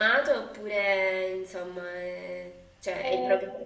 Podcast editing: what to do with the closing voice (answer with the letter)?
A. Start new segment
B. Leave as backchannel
A